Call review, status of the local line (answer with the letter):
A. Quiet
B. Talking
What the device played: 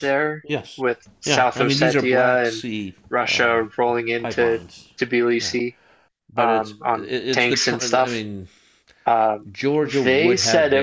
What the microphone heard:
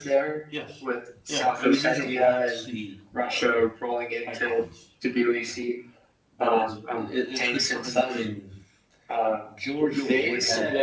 A